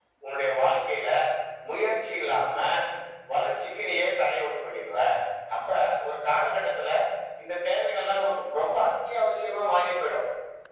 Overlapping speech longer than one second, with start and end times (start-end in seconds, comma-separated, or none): none